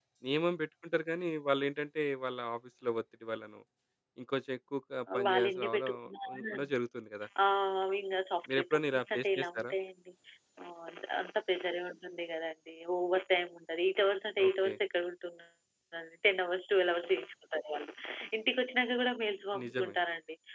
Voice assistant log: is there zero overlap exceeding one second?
No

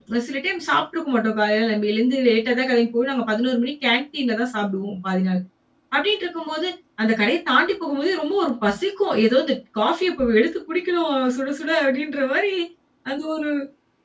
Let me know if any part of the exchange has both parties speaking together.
No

